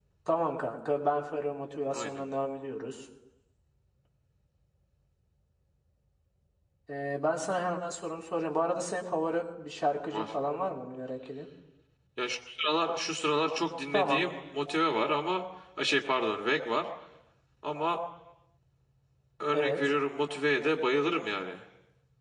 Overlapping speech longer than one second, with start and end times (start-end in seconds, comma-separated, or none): none